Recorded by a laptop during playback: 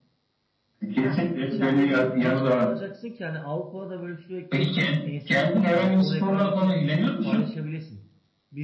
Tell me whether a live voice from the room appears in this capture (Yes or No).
Yes